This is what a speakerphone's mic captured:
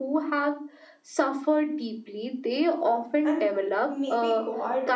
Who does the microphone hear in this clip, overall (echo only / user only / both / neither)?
both